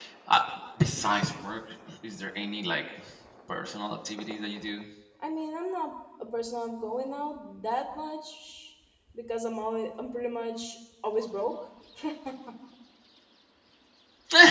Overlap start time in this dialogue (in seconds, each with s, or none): none